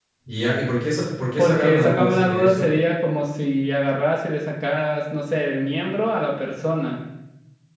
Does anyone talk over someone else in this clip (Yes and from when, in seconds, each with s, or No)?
Yes, from 1.4 s